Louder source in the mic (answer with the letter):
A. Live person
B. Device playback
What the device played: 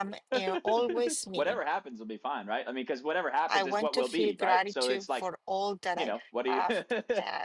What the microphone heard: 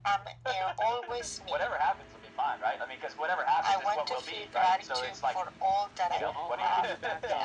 B